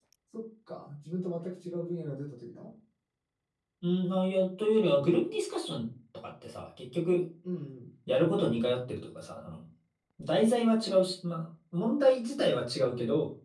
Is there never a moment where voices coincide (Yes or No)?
Yes